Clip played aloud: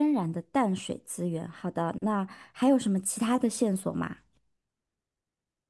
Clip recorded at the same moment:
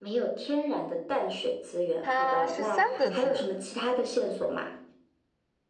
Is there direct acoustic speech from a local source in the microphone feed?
Yes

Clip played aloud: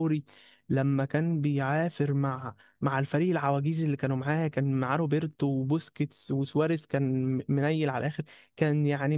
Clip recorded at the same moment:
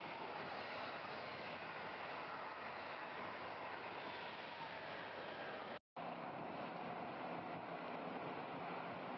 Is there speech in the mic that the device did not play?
No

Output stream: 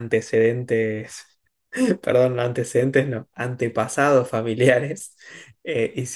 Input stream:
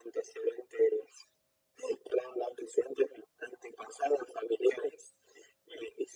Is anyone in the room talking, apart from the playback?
No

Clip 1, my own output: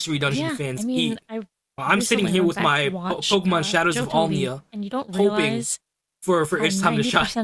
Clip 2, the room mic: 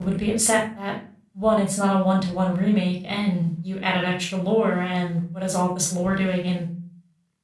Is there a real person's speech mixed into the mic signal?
Yes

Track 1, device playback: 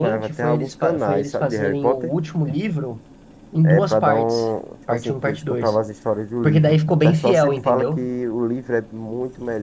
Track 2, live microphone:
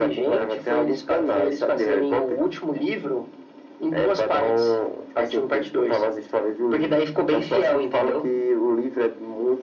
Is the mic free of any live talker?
Yes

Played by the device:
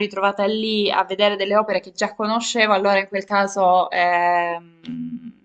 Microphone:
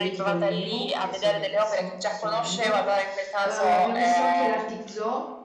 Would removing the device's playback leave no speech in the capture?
No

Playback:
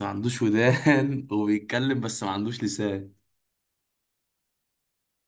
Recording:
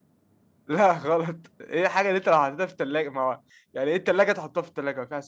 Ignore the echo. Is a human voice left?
Yes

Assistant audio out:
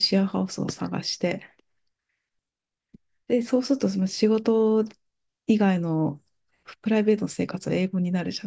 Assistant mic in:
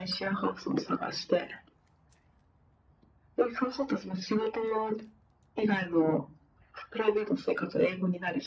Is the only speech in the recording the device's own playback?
Yes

